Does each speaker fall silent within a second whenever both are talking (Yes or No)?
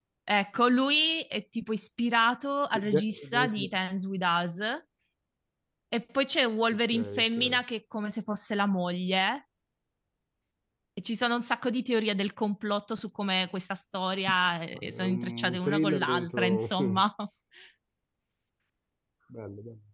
No